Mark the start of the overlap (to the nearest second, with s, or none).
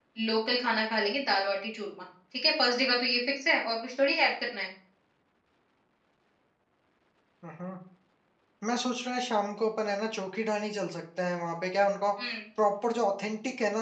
none